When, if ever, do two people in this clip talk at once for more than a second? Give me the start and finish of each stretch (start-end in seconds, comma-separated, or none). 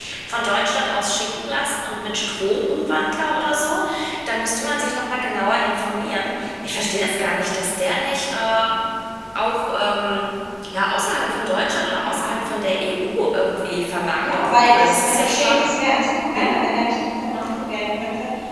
14.2-15.6